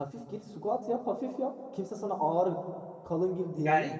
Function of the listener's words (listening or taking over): taking over